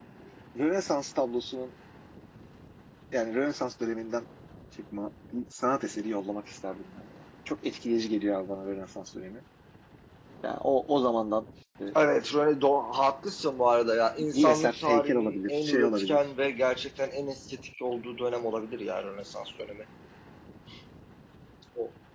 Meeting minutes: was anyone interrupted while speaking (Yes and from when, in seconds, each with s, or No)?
Yes, from 14.2 s